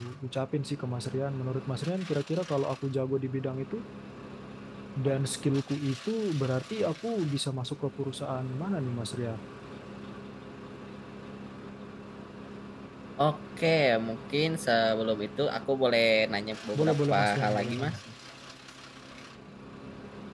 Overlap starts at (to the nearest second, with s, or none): 17 s